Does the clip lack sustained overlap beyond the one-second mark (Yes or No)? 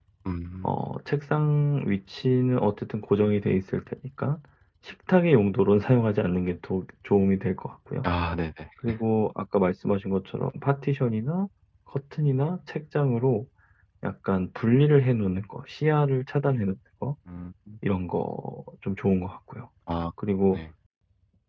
Yes